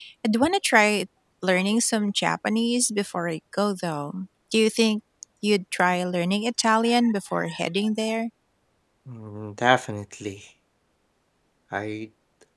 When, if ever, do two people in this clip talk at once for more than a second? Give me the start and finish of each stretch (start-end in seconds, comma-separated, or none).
none